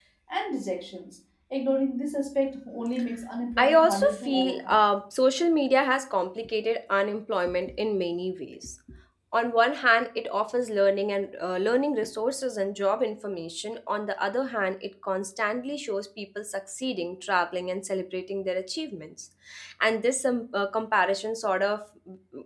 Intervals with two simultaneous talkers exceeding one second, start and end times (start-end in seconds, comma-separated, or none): 3.5-4.8